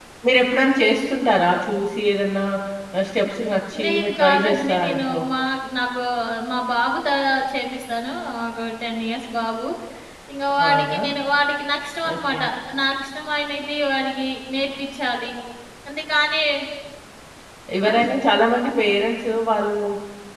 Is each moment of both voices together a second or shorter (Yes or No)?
No